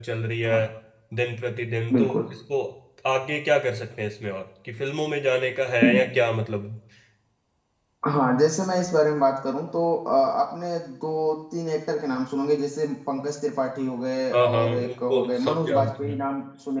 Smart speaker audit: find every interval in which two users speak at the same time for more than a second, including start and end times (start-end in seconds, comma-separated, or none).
14.3-16.2